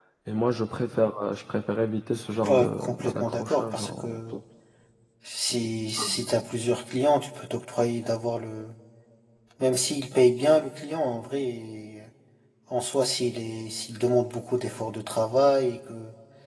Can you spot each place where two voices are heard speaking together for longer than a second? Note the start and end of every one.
2.4-4.4

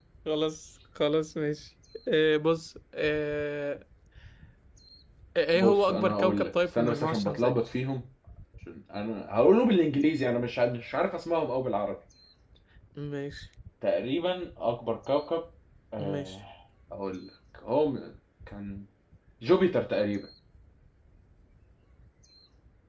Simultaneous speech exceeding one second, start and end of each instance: 5.5-7.5

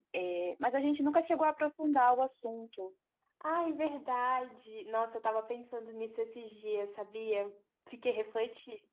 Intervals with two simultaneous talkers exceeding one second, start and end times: none

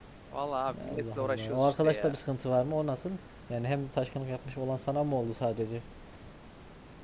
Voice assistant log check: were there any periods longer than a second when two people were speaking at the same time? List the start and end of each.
0.8-2.2

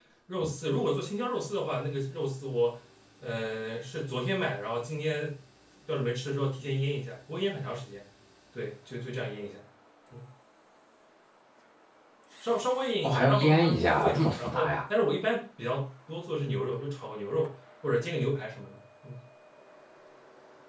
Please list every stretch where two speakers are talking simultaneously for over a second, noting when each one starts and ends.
13.0-14.8

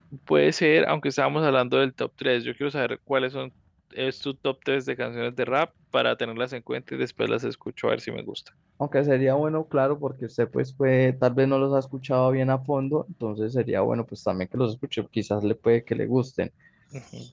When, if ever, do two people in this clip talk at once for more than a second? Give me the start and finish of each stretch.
none

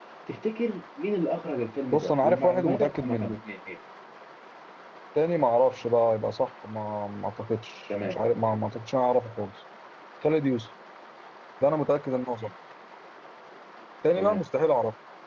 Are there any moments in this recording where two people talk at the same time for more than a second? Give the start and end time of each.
1.9-3.3

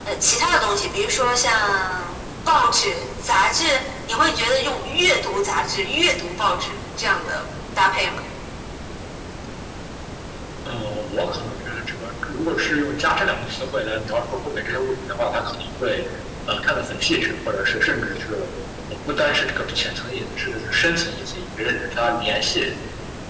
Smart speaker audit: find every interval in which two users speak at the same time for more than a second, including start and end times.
none

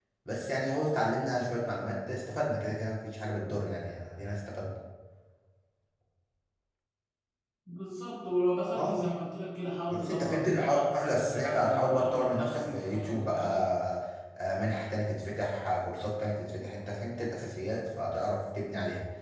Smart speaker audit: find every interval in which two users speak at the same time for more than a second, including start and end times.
9.9-13.4

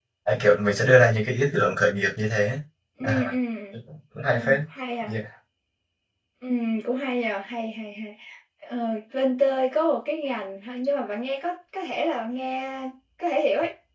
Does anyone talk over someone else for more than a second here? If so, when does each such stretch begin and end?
none

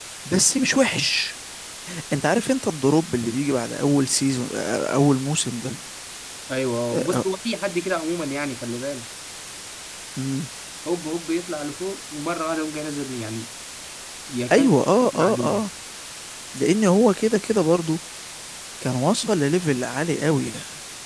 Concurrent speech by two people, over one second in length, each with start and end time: none

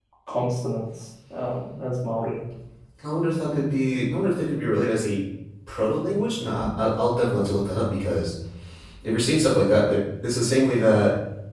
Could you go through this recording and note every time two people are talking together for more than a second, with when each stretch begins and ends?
none

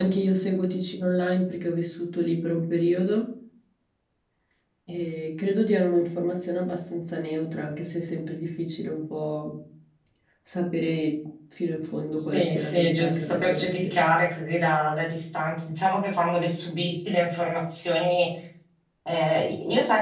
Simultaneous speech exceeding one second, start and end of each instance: 12.2-13.9

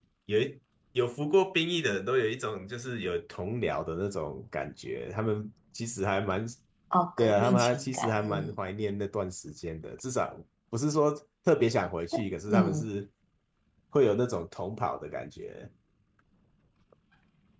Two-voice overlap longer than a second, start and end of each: 7.2-8.6

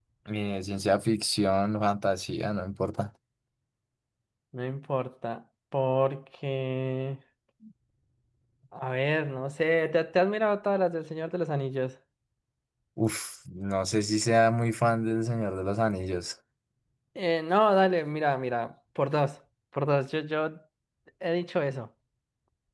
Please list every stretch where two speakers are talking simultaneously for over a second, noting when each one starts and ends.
none

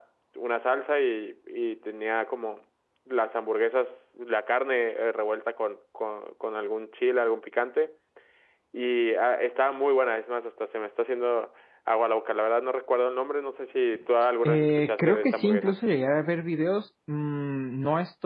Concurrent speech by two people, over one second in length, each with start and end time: 14.4-15.8

